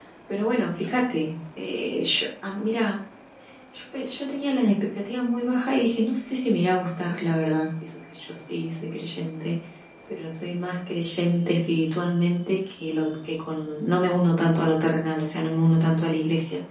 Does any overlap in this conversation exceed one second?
No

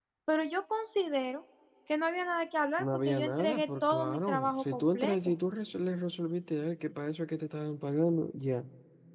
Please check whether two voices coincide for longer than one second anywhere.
Yes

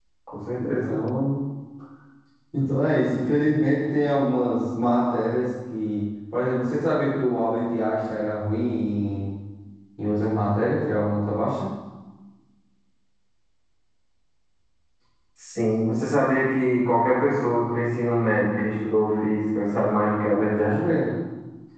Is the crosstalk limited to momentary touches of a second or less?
Yes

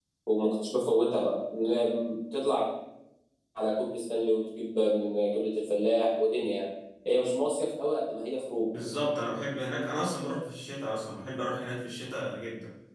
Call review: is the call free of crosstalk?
Yes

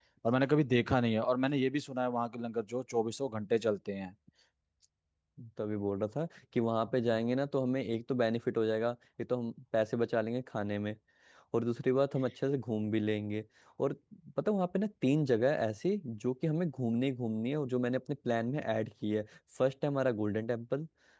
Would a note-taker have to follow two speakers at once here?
No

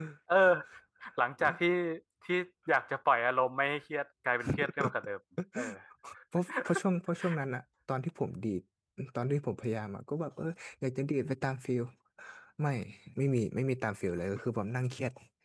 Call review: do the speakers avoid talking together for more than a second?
Yes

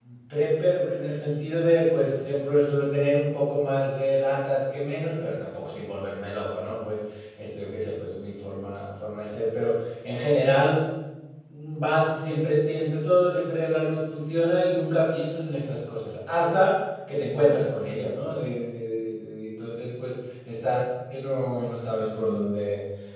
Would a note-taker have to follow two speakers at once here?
No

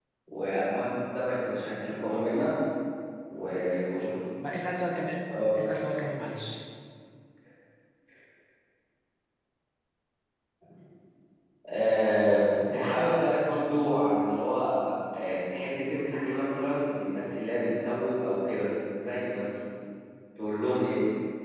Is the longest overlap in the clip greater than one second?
No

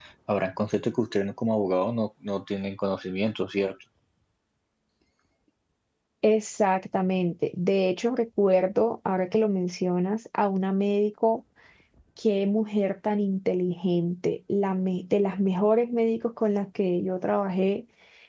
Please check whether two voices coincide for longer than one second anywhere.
No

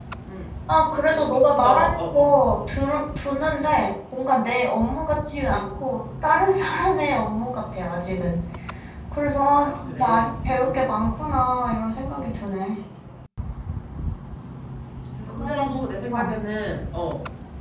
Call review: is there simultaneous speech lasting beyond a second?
Yes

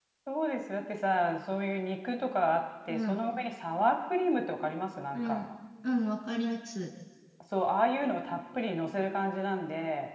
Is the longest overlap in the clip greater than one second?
No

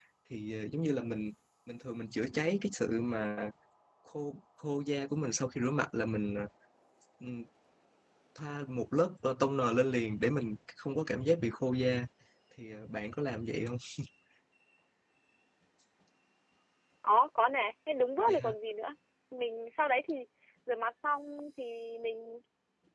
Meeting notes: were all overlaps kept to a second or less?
Yes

